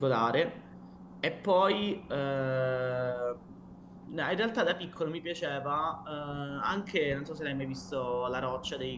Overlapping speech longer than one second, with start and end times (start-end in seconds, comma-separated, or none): none